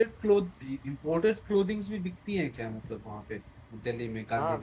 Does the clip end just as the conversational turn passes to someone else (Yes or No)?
Yes